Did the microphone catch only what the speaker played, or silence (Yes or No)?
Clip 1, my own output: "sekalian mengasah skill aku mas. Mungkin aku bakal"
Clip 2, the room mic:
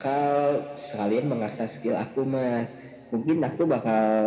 Yes